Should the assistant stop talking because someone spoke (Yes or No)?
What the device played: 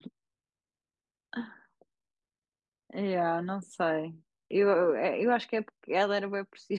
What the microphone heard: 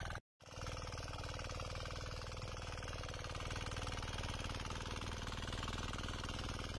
No